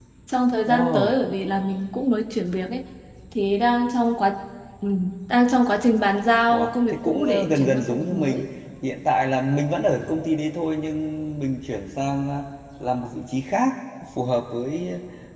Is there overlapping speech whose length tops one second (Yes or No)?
Yes